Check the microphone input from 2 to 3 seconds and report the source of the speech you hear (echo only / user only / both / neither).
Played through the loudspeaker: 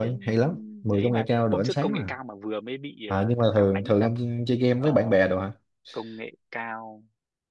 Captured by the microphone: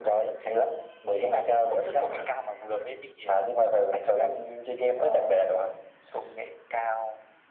echo only